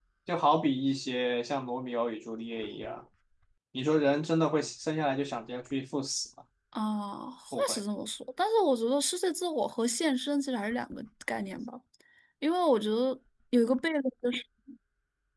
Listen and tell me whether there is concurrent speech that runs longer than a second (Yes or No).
No